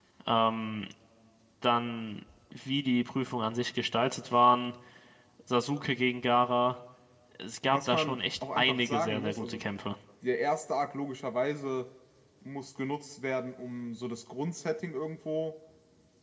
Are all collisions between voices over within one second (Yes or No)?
No